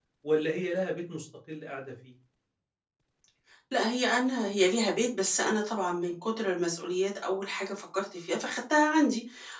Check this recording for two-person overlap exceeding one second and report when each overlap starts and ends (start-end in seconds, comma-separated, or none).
none